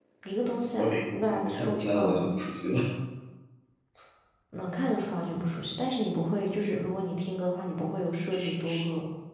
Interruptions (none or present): present